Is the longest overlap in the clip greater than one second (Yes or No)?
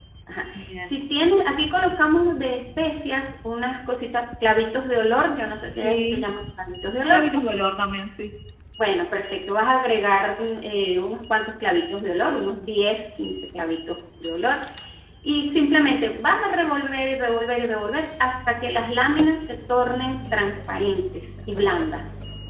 No